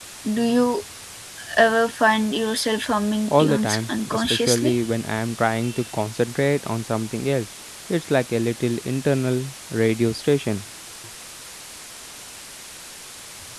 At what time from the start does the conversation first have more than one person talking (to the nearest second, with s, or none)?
3 s